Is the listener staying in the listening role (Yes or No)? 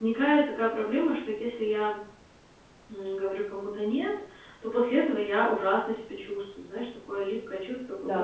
Yes